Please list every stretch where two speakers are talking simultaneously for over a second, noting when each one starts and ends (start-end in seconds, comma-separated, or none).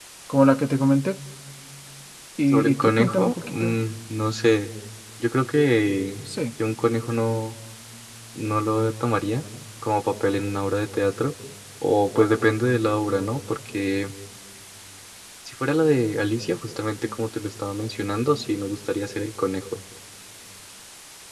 2.5-3.8